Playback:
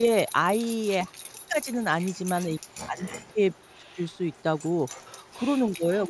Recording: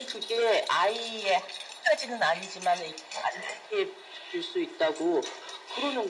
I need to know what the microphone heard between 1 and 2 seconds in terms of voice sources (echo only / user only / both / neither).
echo only